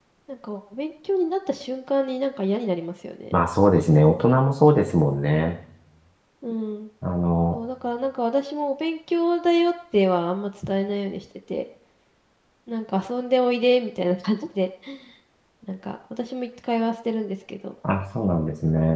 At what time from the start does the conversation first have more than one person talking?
none

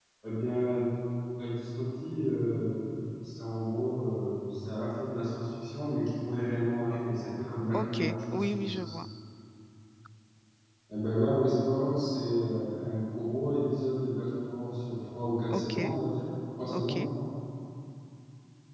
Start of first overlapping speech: 7.7 s

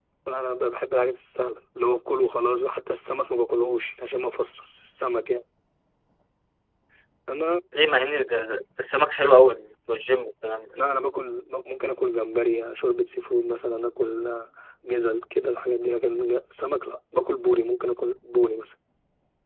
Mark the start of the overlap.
none

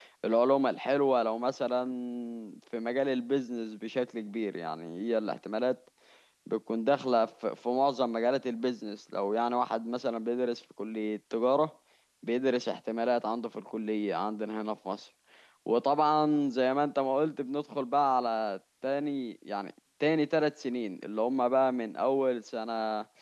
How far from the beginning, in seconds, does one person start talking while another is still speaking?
none

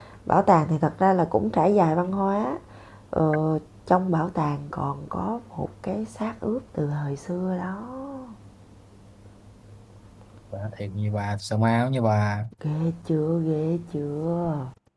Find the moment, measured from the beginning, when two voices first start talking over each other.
none

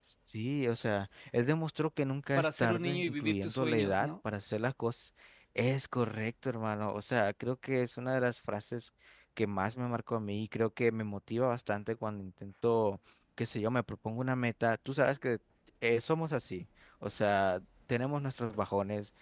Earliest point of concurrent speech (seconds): 2.4 s

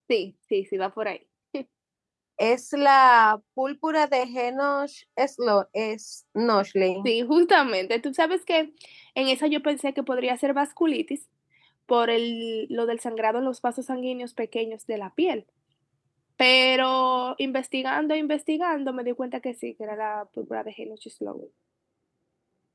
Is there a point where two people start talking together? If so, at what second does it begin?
none

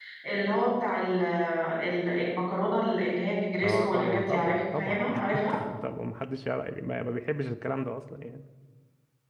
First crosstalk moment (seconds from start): 3.6 s

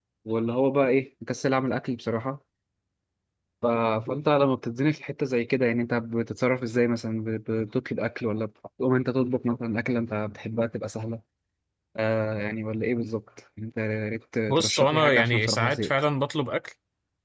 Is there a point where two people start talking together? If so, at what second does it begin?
14.5 s

